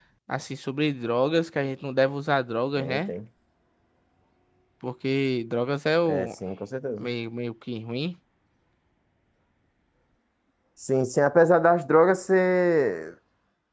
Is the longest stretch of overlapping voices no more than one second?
Yes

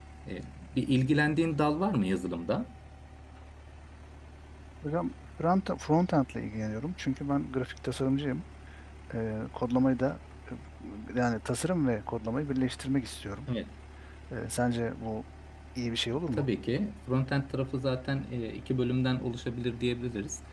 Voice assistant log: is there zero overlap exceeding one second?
Yes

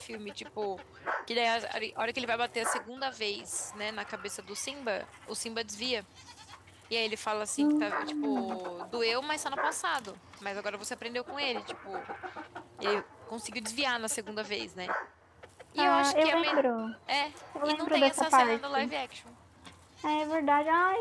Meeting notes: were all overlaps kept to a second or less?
No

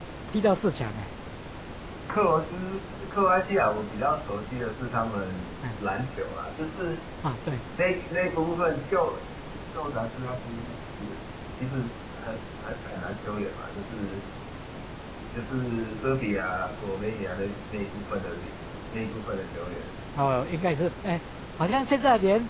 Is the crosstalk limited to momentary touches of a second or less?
Yes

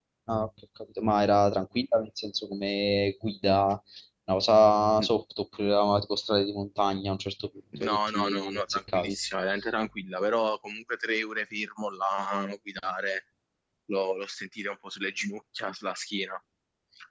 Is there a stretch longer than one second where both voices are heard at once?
Yes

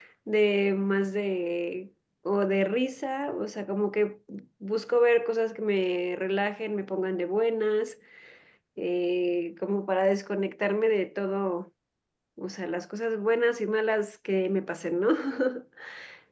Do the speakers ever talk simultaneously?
No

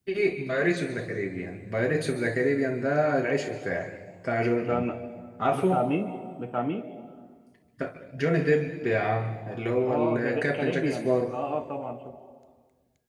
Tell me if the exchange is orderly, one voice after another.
No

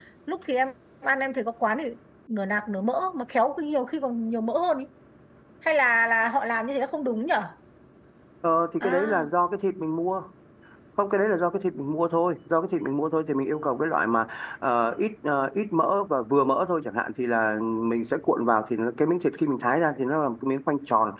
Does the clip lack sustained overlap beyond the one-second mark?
Yes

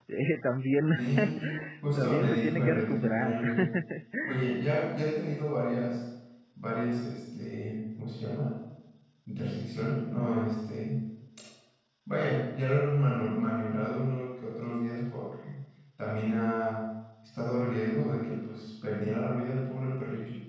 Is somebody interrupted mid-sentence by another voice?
Yes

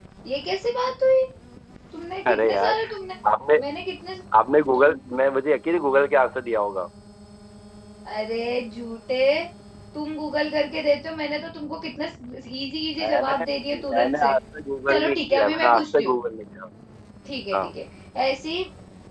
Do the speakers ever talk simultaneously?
Yes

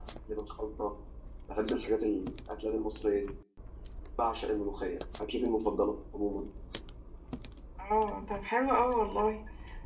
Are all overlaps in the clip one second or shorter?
Yes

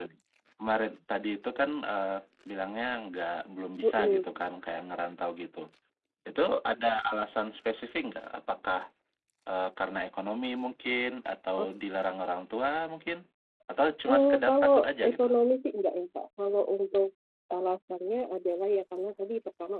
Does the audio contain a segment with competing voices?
Yes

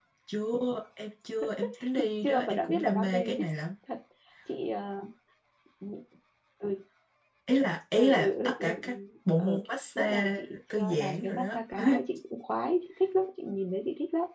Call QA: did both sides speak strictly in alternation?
No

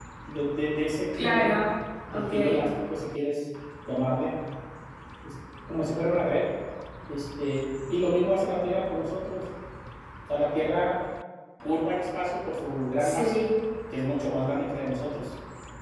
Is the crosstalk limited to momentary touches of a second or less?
Yes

